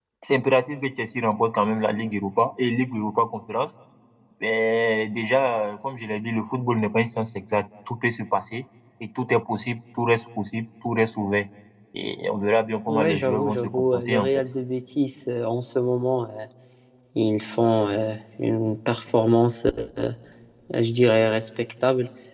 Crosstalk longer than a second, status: present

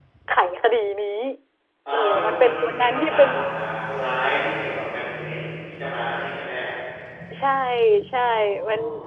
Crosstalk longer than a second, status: present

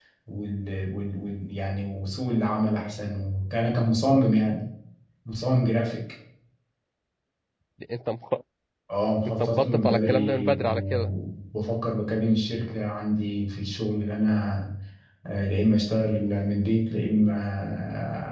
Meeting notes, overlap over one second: present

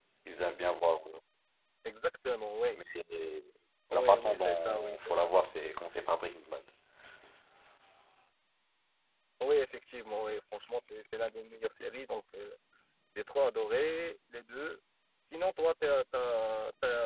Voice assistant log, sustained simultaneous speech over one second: present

